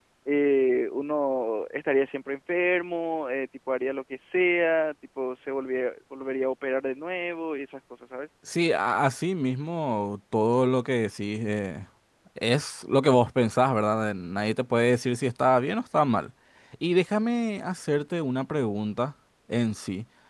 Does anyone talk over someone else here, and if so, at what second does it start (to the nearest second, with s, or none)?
none